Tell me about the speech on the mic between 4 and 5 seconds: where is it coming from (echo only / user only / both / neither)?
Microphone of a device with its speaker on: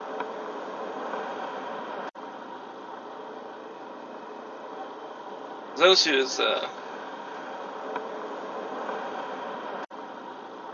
neither